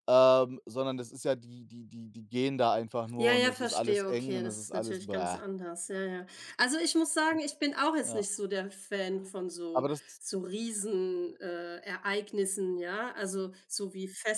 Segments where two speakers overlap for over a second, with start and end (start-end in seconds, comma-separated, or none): 3.2-5.4